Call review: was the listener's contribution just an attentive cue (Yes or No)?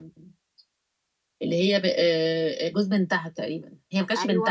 No